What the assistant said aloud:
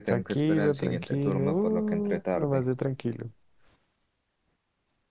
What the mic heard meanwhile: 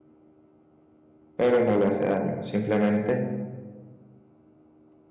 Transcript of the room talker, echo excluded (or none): Pero no le hace daño, simplemente